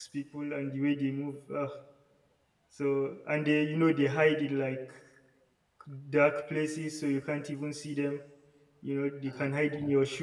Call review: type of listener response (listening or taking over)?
listening